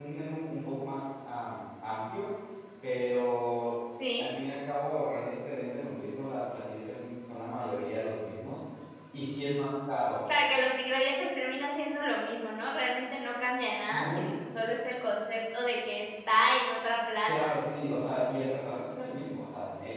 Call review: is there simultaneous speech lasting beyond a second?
No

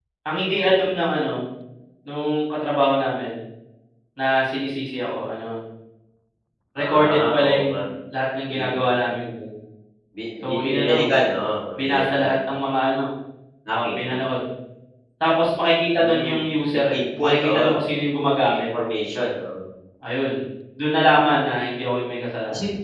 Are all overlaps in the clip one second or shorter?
No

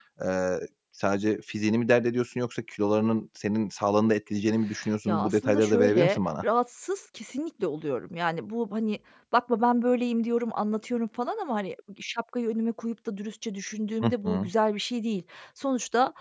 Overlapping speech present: Yes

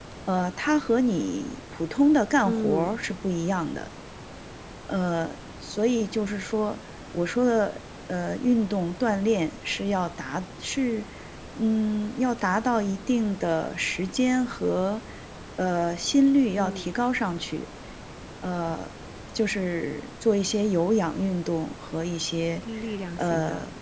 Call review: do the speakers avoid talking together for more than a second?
Yes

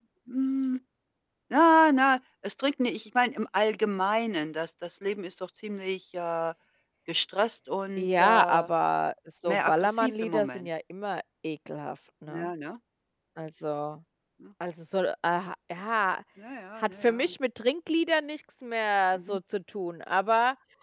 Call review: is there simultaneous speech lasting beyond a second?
Yes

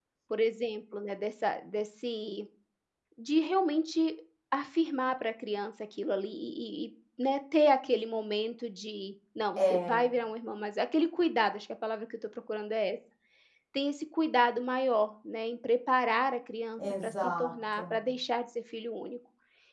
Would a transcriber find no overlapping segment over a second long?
No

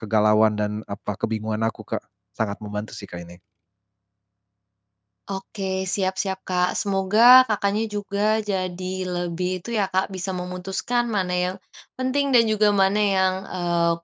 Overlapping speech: No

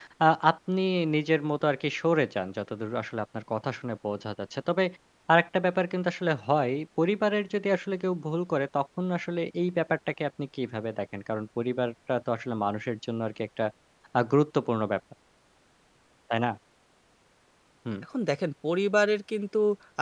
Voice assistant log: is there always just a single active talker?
Yes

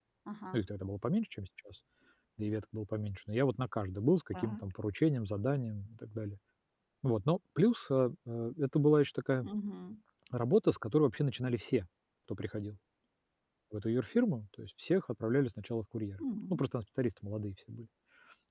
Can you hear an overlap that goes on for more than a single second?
No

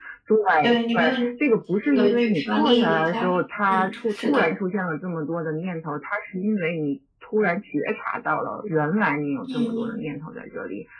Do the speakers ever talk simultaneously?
Yes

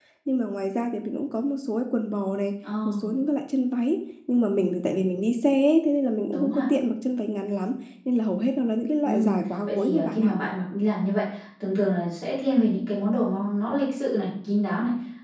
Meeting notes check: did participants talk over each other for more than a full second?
Yes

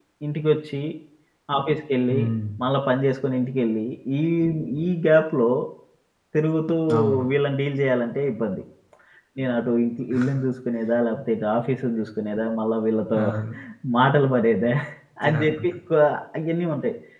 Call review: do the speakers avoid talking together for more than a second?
Yes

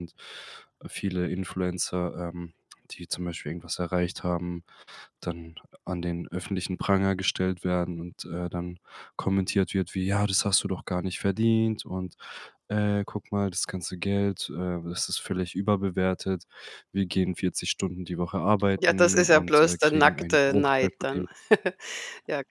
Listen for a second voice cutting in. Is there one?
Yes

